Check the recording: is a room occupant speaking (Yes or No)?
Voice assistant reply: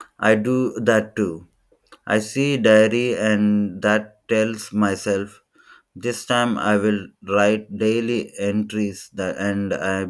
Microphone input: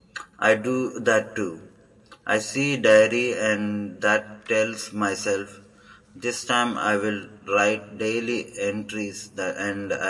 No